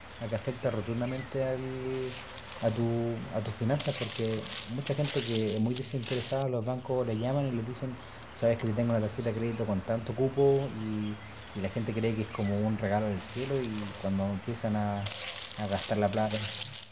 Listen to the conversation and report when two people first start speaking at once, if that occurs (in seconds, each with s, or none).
none